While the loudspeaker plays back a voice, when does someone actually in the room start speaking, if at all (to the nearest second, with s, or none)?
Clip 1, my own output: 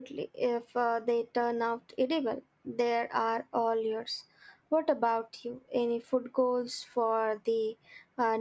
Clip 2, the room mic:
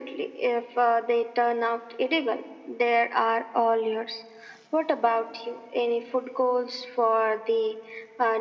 none